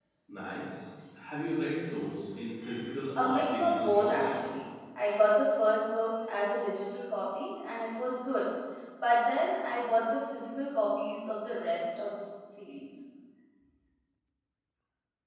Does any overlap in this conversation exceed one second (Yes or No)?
Yes